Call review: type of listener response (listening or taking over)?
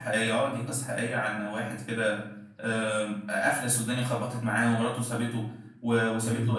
listening